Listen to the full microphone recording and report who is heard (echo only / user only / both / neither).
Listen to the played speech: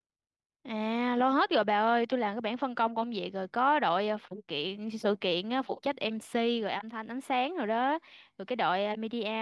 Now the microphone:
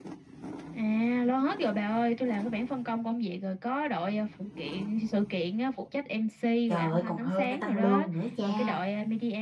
both